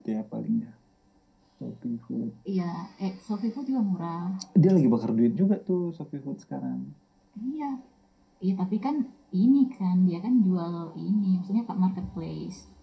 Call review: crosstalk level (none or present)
none